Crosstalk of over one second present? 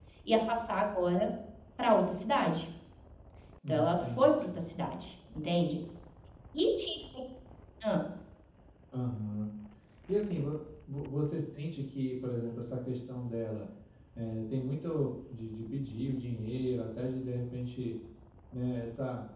Yes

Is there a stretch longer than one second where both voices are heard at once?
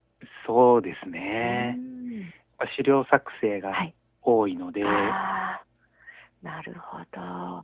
No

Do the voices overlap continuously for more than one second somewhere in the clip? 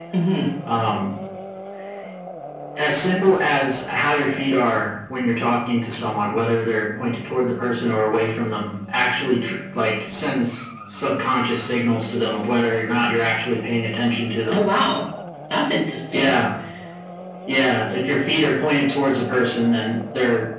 No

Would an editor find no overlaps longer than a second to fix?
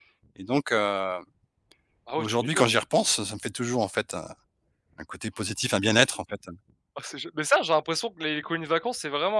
Yes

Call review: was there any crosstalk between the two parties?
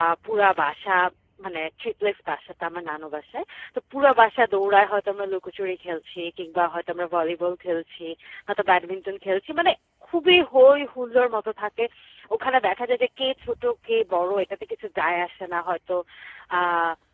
No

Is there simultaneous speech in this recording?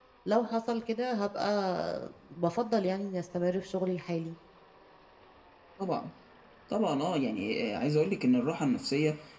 No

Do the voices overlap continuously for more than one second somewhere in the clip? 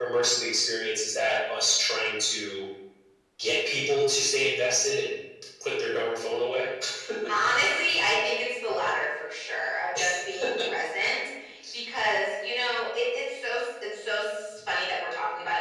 No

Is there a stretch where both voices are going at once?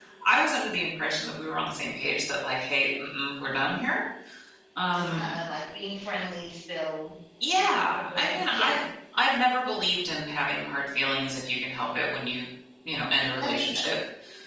Yes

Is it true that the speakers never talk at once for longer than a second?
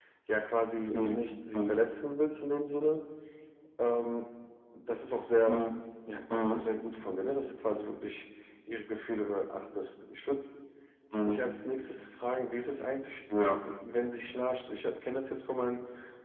Yes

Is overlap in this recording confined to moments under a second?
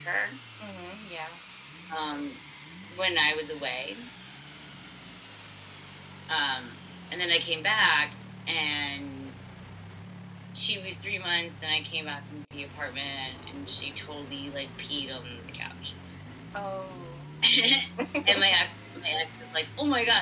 Yes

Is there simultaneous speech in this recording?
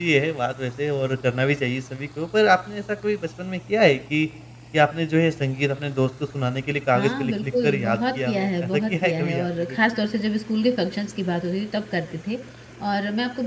Yes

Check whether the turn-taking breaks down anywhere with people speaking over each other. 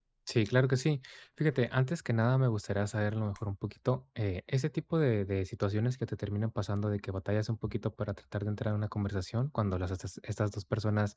No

